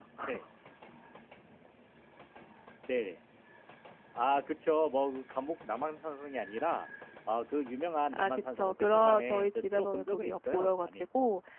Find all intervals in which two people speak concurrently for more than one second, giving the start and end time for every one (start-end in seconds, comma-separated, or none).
8.1-11.1